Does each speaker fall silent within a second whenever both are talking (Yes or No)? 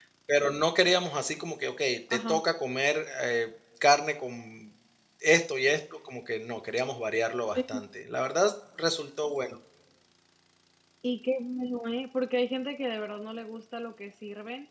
Yes